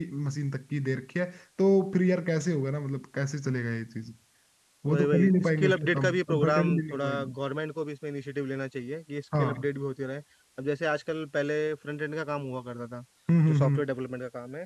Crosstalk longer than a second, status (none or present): present